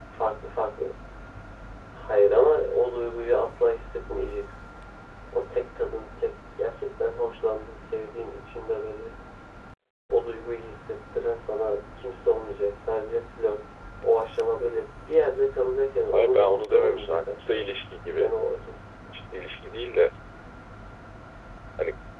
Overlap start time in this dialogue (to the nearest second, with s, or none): 16 s